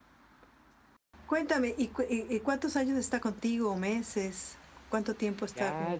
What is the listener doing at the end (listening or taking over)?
taking over